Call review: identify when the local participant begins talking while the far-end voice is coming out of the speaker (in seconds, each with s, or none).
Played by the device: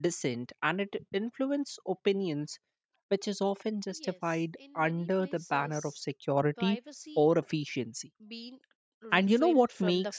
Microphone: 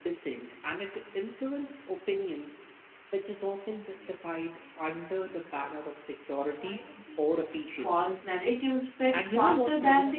7.7 s